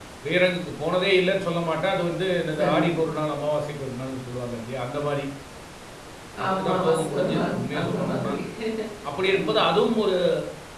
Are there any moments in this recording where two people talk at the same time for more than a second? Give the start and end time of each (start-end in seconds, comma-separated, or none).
6.5-8.3